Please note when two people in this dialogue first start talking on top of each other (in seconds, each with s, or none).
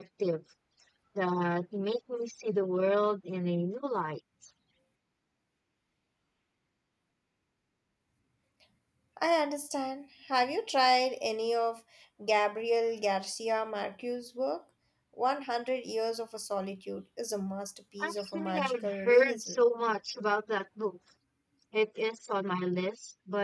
18.0 s